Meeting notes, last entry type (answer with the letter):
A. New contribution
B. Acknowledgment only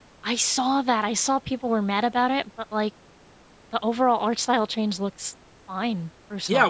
A